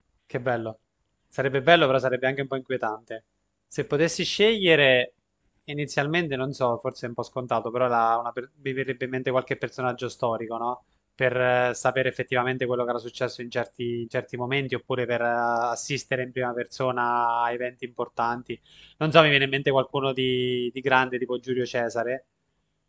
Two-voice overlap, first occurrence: none

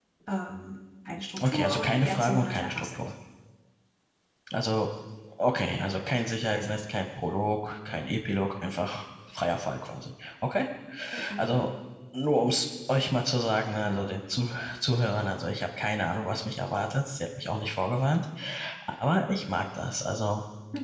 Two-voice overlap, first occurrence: 1.4 s

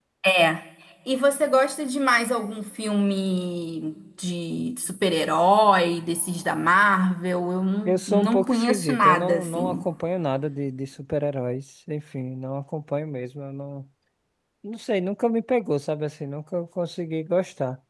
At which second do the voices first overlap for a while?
7.8 s

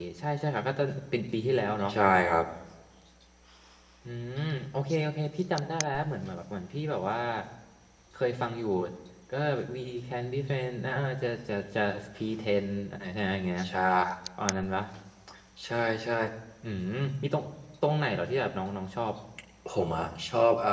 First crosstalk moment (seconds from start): none

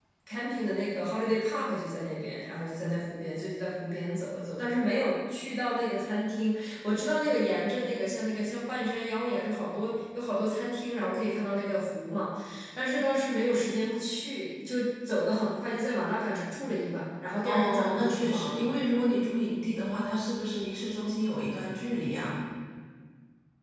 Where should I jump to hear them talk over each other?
17.4 s

